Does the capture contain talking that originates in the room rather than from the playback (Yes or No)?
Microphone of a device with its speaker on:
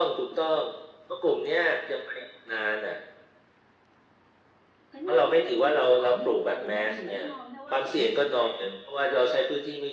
Yes